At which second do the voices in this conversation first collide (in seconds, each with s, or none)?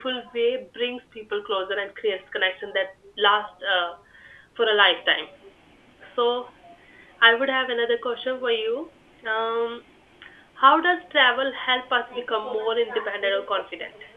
12.1 s